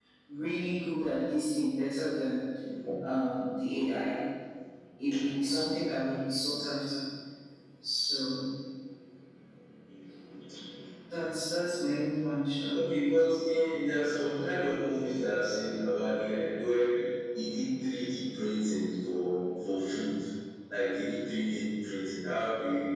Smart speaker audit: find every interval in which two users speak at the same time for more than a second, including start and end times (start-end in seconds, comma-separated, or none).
none